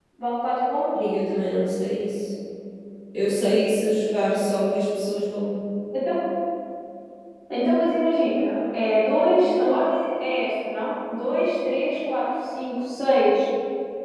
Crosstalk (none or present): none